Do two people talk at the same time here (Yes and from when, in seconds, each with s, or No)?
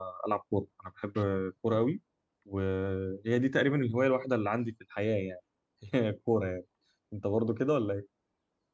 No